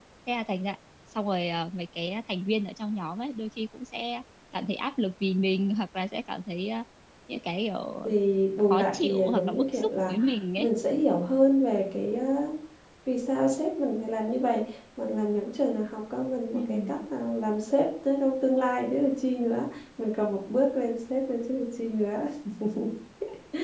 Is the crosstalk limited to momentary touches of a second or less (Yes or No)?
No